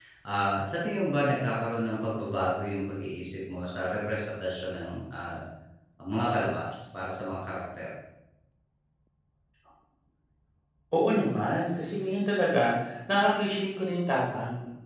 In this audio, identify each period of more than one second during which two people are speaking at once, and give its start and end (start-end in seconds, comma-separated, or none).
none